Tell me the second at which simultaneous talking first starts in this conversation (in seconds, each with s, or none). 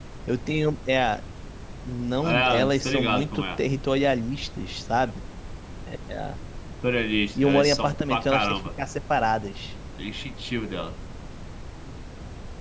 2.2 s